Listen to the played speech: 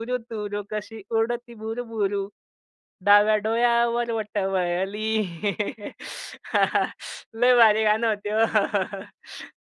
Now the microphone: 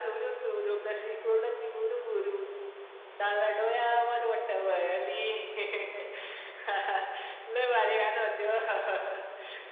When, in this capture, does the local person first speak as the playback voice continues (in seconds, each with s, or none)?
none